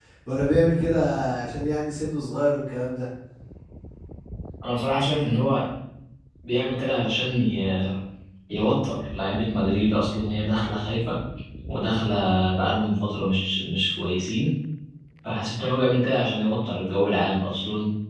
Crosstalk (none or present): none